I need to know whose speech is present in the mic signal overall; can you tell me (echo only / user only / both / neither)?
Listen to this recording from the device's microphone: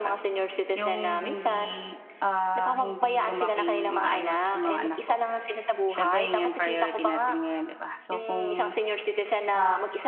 both